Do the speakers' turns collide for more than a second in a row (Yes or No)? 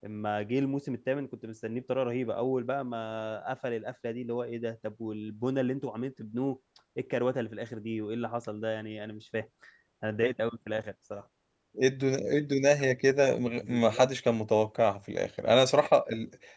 No